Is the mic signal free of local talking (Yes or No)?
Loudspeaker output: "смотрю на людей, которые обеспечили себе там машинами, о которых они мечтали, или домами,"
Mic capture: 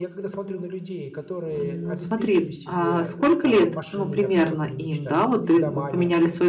No